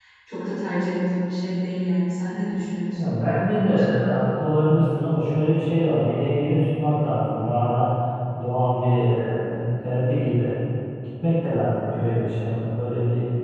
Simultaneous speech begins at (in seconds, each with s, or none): none